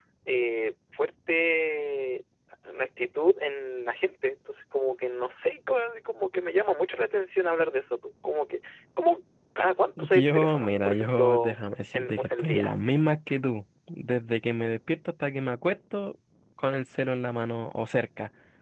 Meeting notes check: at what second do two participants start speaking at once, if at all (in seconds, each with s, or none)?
10.0 s